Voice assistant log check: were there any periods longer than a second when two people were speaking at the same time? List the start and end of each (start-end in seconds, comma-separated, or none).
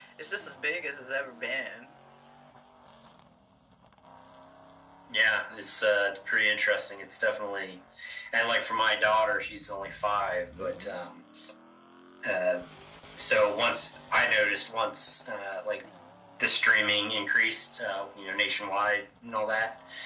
none